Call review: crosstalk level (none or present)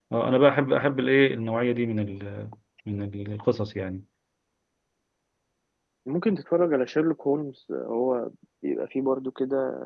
none